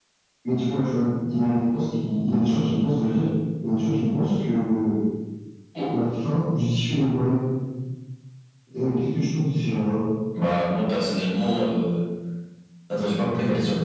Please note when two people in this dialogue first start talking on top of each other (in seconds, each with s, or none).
none